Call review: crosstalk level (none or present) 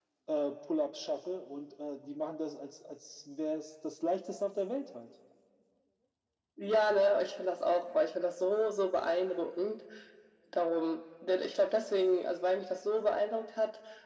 none